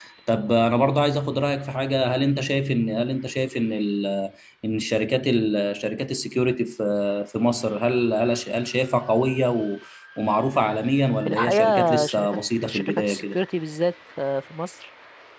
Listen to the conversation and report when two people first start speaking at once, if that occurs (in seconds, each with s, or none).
11.2 s